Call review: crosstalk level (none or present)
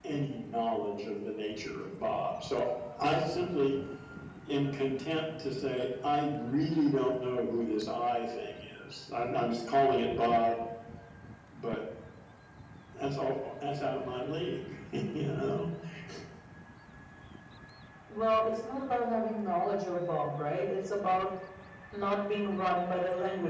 none